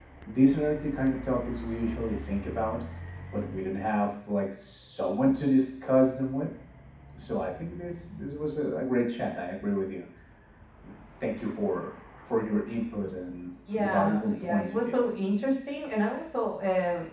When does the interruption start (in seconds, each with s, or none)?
13.7 s